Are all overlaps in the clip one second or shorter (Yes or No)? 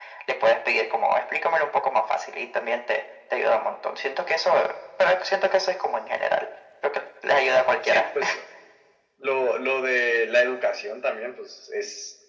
Yes